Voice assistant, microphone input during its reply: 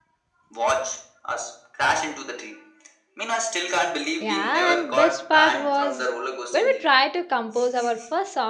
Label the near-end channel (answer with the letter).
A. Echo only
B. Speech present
B